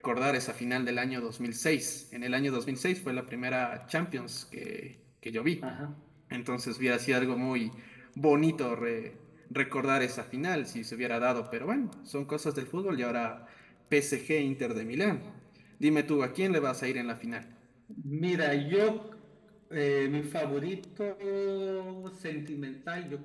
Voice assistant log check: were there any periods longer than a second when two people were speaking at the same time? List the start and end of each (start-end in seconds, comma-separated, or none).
none